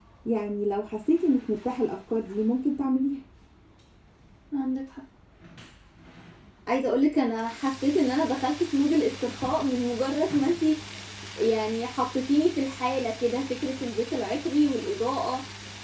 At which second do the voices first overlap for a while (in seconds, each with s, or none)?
none